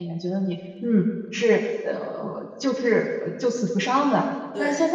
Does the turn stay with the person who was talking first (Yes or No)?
Yes